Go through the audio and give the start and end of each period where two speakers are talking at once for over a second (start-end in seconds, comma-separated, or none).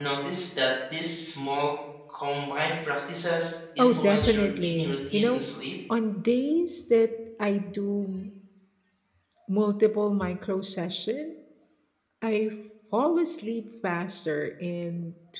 3.8-5.4